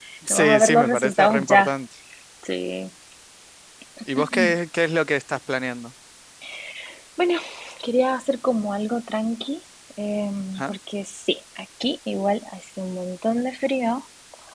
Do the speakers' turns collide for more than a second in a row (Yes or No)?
Yes